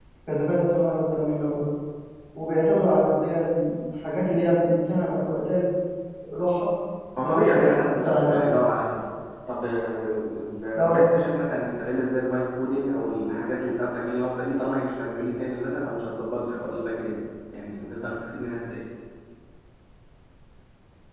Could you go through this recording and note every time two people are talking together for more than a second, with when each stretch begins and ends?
7.2-8.5

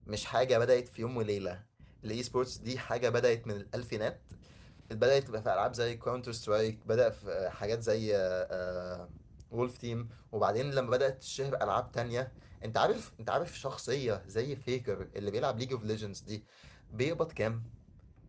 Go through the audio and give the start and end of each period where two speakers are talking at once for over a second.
none

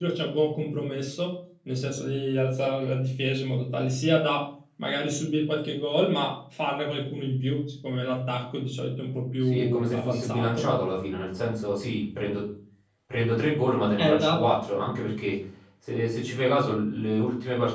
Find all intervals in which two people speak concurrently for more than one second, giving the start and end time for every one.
9.5-10.7

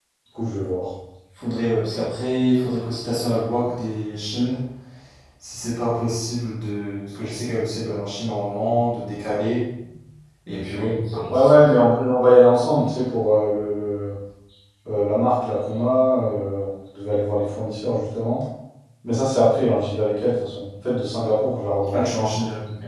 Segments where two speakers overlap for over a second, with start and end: none

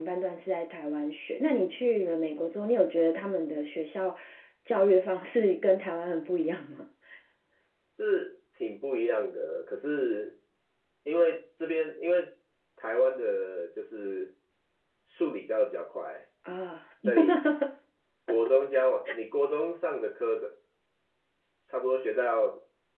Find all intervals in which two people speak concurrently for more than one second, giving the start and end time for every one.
none

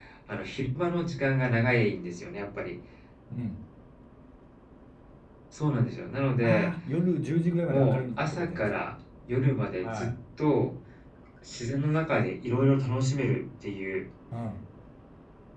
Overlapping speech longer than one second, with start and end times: 7.7-8.9

